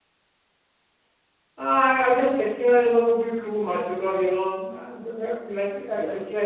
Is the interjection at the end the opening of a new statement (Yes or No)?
No